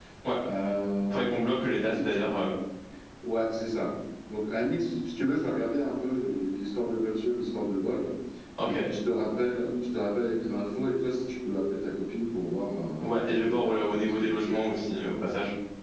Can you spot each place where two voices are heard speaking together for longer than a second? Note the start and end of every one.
13.0-14.4

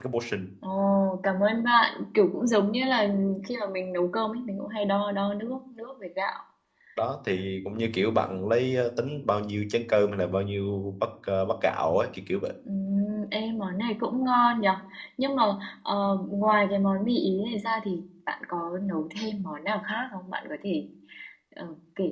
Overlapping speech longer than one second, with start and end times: none

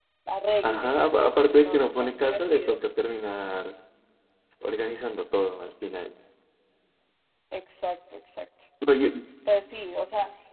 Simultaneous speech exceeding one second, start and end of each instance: 1.5-2.8

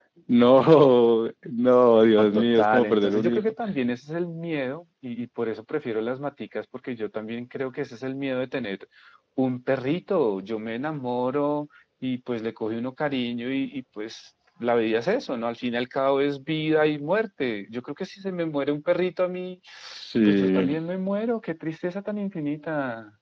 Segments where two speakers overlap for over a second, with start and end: 2.2-3.5

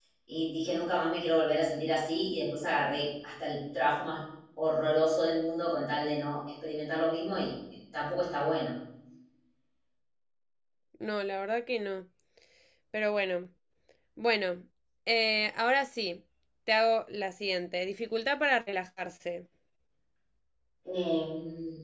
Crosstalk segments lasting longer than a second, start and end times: none

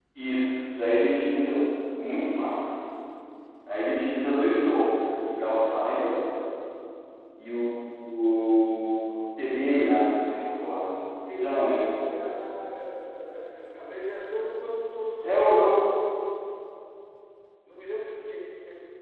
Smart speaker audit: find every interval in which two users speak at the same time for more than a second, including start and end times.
none

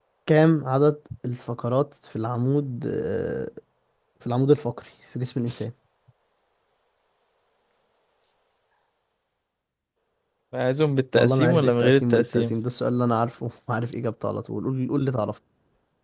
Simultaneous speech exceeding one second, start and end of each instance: 11.1-12.5

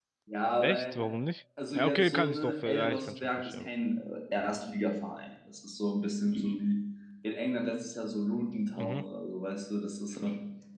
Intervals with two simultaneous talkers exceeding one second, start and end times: 1.7-3.7

